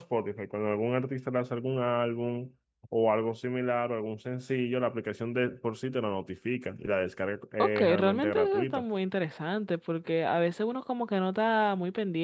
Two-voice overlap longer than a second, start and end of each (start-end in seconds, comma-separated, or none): 7.6-8.8